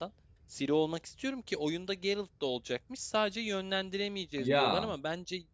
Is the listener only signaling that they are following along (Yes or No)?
Yes